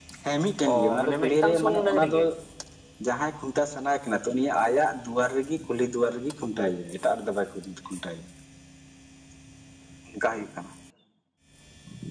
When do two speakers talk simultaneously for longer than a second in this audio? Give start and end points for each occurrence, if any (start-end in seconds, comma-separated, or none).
0.7-2.2